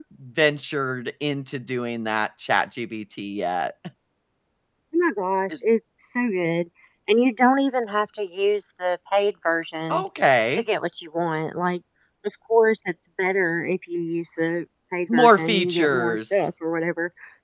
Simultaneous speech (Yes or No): Yes